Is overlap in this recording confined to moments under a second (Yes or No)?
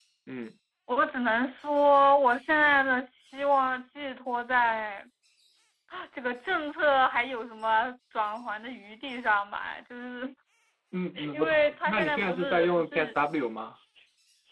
No